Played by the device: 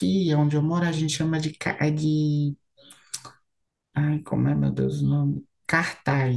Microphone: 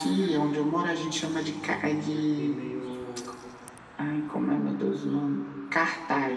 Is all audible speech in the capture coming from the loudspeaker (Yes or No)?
No